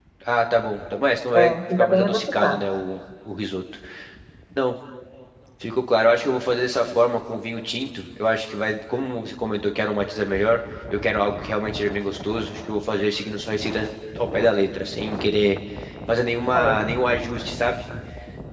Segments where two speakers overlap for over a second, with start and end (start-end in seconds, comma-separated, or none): 1.3-2.6